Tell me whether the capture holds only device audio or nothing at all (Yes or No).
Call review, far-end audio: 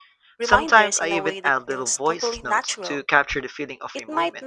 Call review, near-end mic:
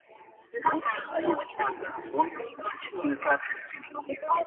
Yes